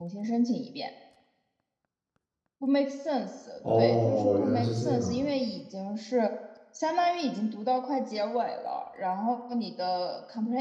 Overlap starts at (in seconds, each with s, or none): 3.6 s